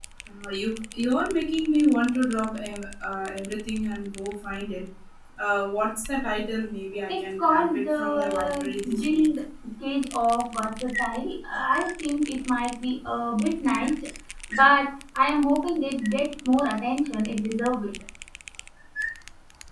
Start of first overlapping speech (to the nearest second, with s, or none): 7 s